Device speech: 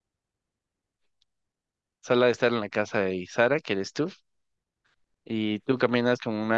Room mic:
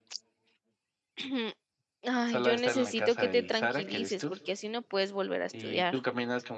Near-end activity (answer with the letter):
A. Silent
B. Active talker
B